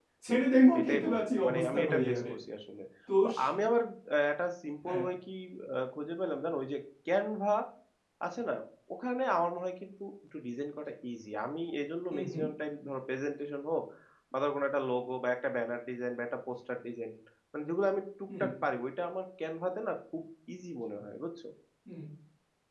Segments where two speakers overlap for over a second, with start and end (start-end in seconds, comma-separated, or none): 0.8-2.2